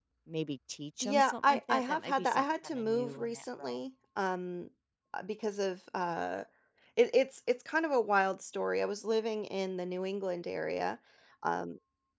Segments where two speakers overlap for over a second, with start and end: 1.0-3.8

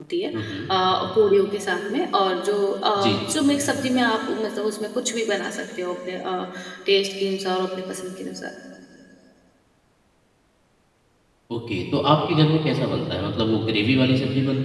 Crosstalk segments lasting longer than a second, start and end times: none

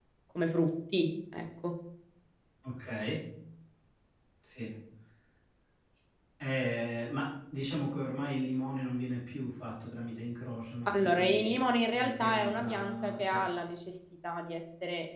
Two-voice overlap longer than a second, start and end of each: 10.9-13.5

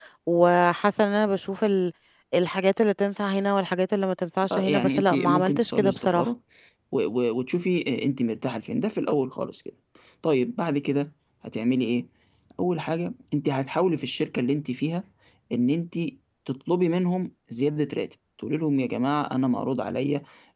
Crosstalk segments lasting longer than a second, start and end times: 4.5-6.3

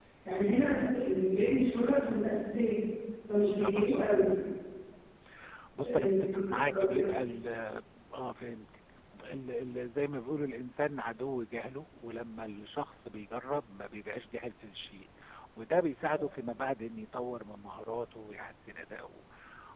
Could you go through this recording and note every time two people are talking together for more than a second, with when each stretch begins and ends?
5.8-7.0

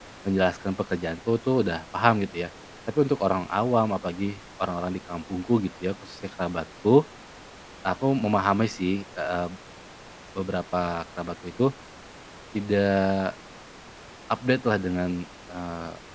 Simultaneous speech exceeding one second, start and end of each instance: none

